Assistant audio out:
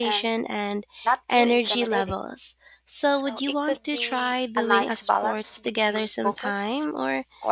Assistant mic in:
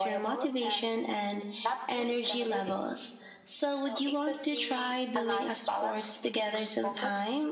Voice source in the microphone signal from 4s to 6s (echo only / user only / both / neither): echo only